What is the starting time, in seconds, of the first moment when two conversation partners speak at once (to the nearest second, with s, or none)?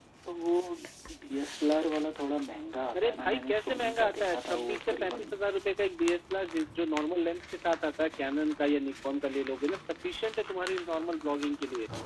3 s